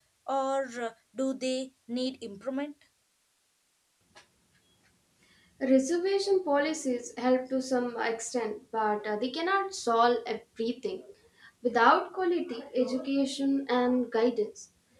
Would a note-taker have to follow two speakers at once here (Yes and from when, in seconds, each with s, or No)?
No